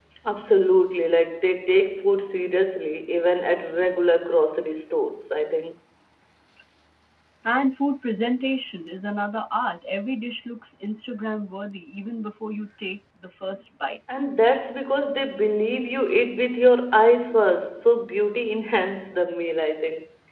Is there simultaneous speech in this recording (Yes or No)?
No